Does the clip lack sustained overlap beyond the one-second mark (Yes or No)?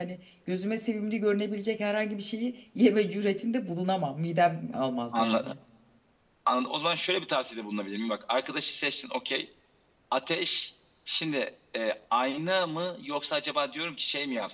Yes